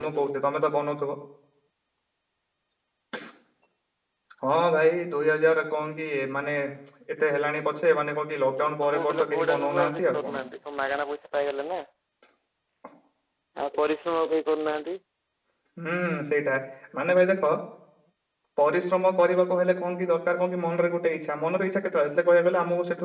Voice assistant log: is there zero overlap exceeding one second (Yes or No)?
No